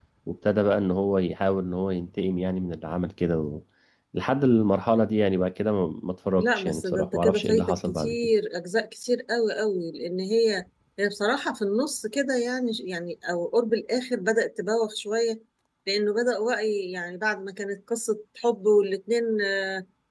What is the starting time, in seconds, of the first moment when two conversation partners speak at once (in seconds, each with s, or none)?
6.4 s